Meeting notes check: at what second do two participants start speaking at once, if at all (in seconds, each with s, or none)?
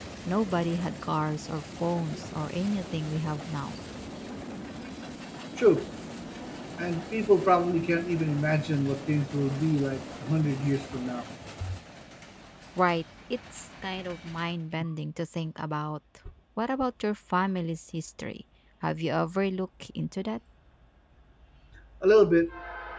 none